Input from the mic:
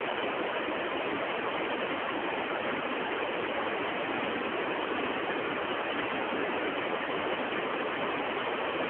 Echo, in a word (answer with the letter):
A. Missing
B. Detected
A